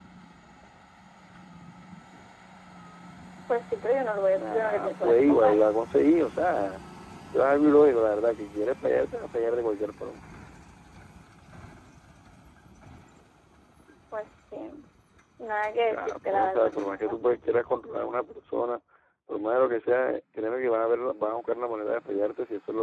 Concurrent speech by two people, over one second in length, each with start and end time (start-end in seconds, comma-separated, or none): 4.4-5.7, 15.9-17.4